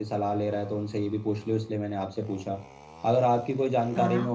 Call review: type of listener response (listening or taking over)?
listening